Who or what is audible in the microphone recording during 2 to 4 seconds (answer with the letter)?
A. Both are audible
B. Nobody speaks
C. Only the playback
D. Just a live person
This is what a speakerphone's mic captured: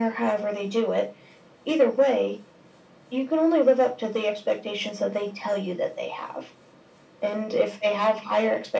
C